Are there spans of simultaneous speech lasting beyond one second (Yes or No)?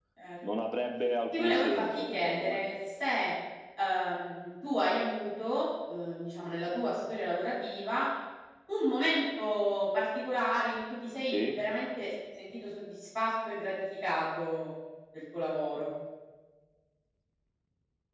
Yes